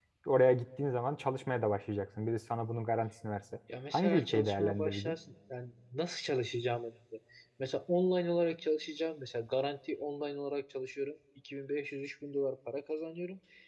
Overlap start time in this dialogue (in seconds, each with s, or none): 3.9 s